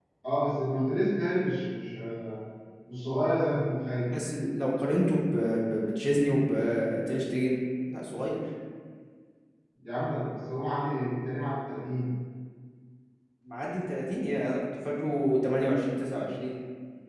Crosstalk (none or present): none